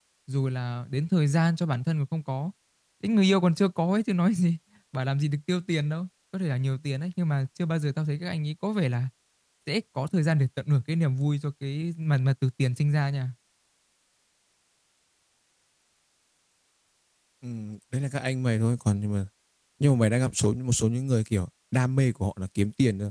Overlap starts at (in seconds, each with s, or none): none